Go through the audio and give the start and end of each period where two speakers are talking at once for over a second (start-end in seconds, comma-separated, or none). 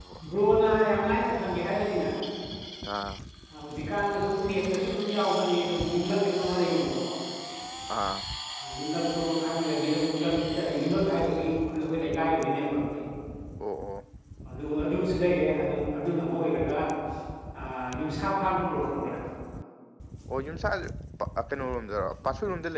none